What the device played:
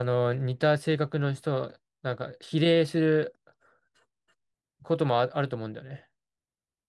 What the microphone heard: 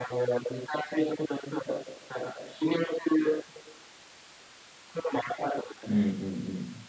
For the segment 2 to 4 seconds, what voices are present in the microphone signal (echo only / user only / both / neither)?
echo only